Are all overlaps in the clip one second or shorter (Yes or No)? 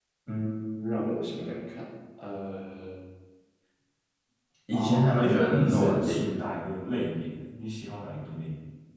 No